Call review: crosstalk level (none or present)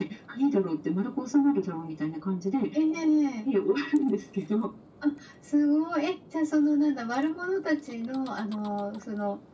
none